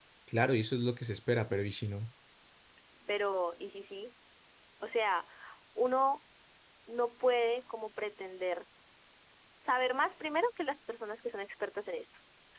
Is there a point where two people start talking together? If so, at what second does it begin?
none

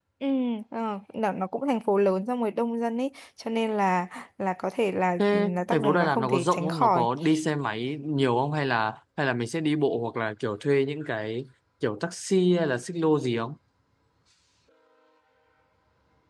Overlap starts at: 5.2 s

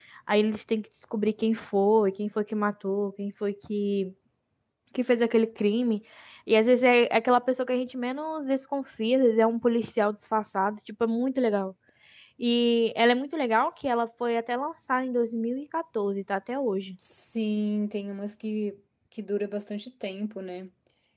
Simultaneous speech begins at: none

